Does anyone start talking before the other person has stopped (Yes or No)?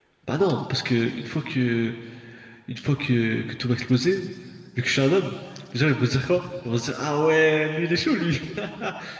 No